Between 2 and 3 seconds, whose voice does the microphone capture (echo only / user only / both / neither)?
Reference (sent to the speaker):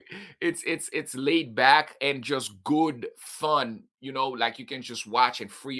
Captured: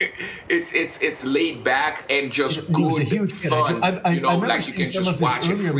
both